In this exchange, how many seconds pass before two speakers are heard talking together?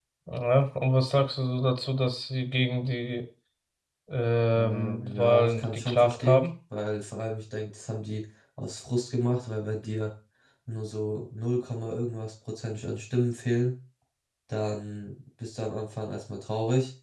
4.5 s

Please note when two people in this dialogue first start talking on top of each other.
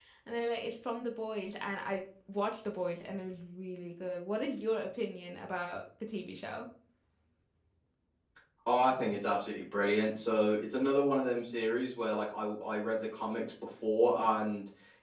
none

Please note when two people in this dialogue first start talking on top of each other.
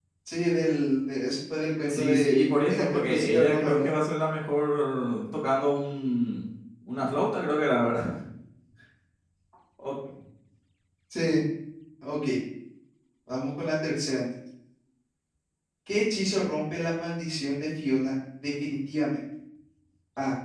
1.9 s

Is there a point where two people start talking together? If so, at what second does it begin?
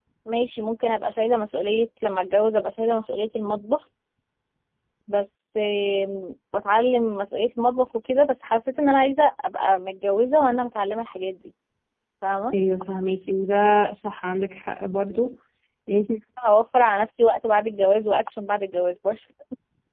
none

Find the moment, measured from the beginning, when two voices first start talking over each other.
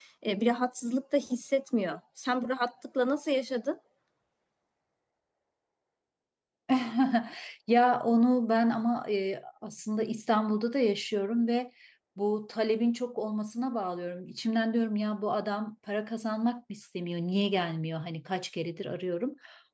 none

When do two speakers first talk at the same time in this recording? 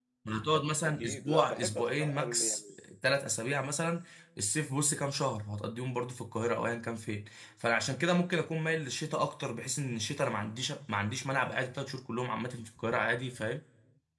0.8 s

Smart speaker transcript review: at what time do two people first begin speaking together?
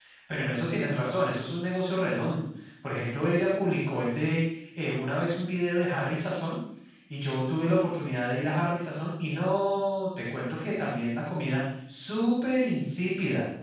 none

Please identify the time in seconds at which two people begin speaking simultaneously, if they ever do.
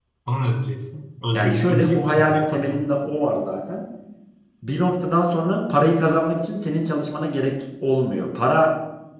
1.3 s

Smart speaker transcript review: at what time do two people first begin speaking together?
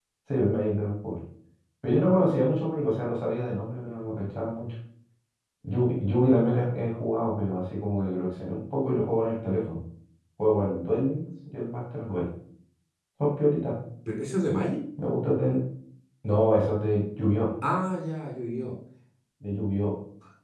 none

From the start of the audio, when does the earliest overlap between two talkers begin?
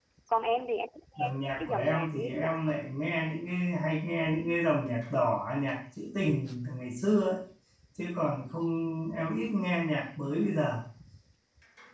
1.2 s

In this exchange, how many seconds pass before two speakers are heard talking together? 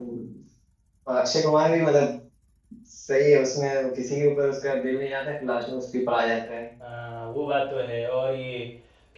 none

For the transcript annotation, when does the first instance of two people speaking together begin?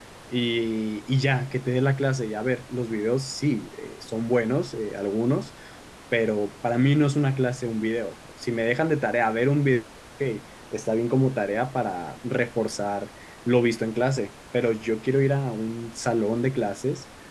none

